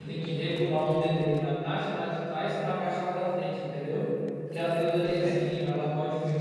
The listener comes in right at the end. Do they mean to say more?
No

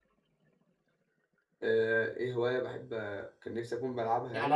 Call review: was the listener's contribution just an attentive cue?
No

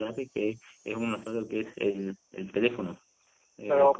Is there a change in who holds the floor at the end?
Yes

